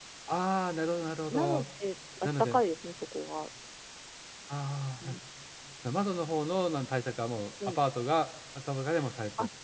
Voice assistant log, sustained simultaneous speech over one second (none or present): none